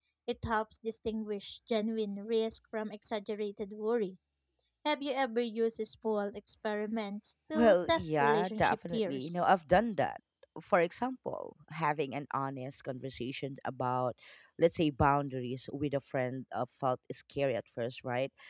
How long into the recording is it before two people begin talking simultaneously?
7.5 s

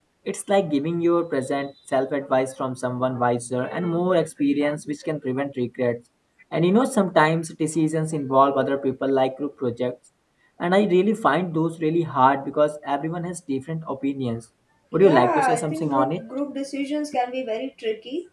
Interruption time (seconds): 14.9 s

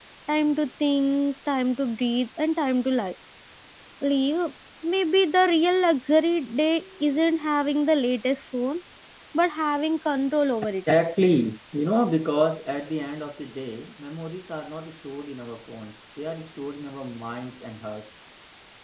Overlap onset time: none

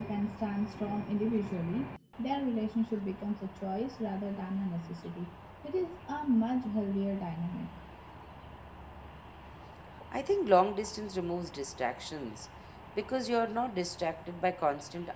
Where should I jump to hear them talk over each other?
none

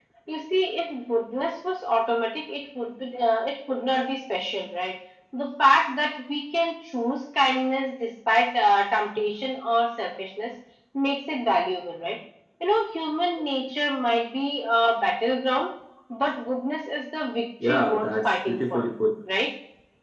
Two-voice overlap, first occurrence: 17.6 s

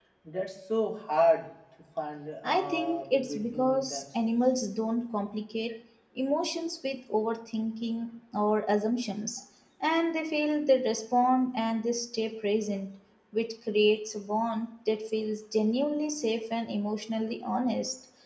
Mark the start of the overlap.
2.4 s

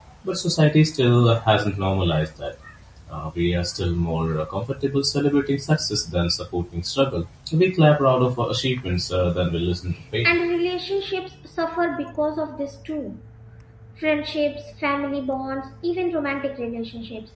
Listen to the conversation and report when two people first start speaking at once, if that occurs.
none

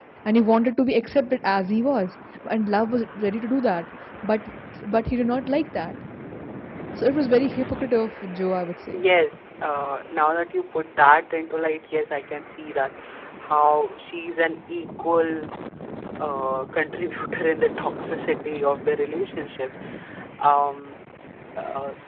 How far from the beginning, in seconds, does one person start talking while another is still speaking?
none

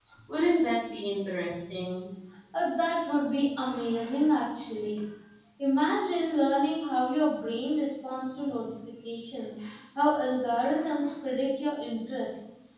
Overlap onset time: none

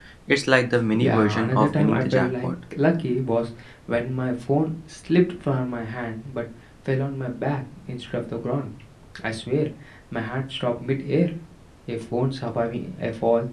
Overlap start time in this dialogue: 0.9 s

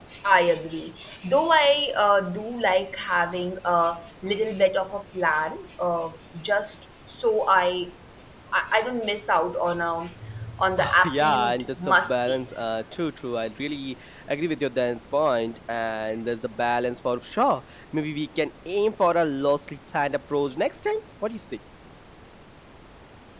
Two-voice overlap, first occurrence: 11.0 s

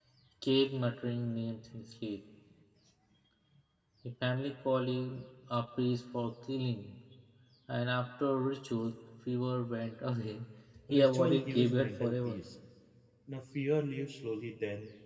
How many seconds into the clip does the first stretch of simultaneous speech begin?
10.9 s

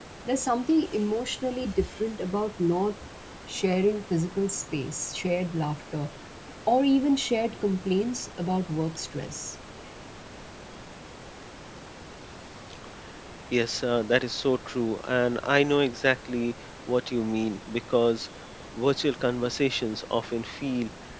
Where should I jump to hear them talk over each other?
none

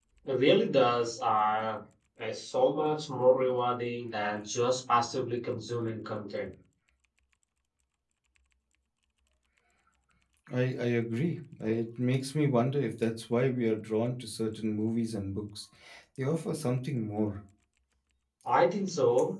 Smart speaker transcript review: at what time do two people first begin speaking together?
none

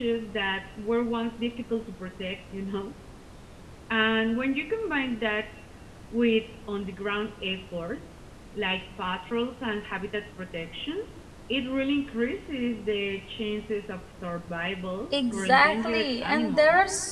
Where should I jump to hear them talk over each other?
15.1 s

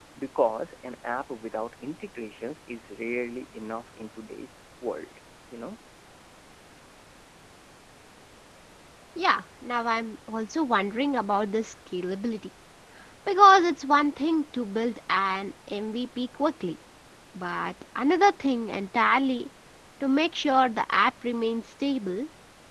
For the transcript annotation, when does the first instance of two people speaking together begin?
none

